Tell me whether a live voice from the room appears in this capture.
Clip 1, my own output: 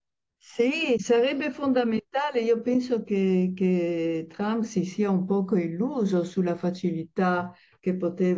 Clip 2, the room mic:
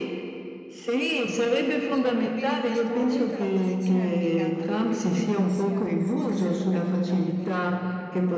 Yes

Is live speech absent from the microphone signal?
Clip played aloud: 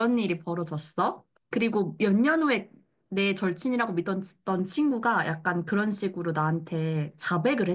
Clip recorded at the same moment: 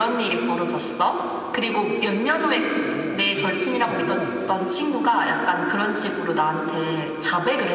No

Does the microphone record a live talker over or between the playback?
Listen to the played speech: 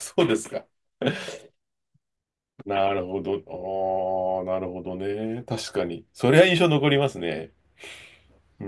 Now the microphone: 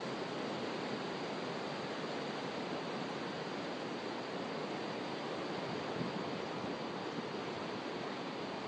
No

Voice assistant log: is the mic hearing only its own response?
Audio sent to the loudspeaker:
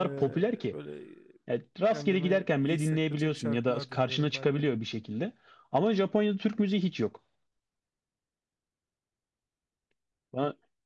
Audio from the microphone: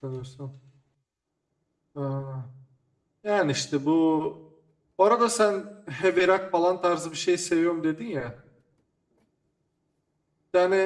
No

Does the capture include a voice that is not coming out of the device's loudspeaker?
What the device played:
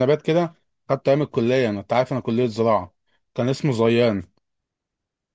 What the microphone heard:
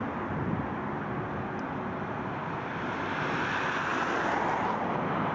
No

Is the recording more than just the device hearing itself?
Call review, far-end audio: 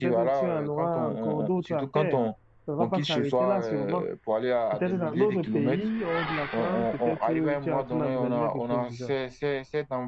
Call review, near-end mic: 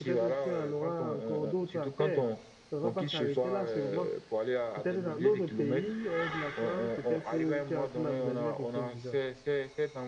No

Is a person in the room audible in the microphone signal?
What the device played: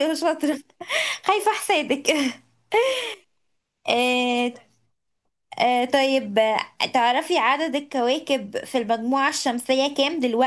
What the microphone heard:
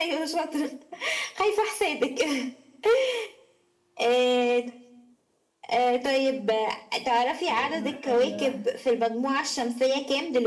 Yes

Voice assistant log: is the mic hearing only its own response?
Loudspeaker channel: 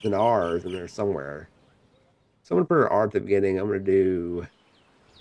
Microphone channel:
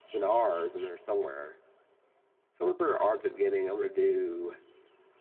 Yes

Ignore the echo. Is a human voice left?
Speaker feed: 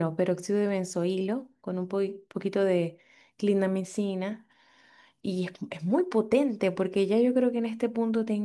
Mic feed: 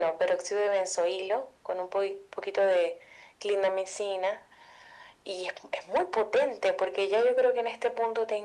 No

